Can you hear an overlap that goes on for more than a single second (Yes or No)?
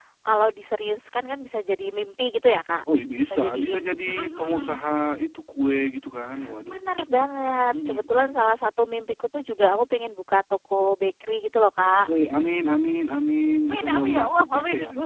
Yes